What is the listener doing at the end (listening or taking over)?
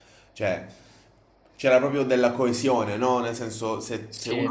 listening